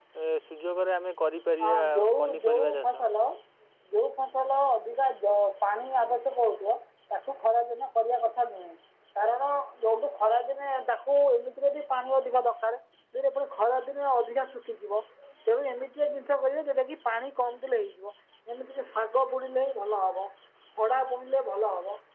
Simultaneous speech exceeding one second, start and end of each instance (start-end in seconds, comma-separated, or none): 1.6-3.0